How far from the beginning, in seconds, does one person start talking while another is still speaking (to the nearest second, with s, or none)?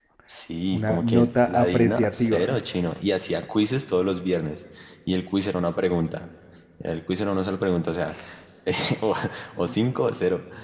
1 s